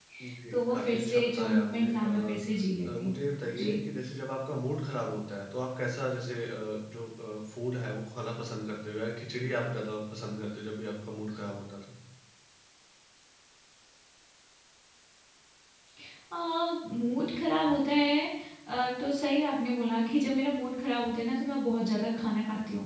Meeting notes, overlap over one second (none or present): present